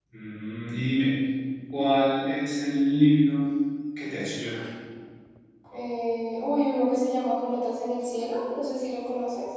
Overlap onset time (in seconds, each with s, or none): none